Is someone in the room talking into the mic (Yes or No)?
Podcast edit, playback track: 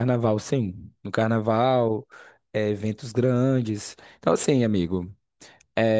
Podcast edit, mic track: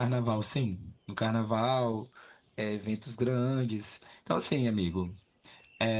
No